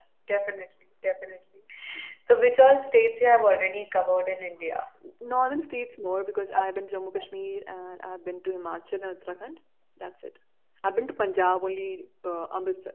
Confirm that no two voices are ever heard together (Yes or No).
Yes